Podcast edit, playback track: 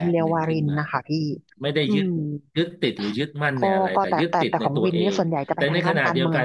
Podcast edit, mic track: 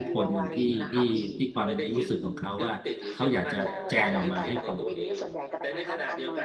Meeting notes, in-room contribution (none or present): present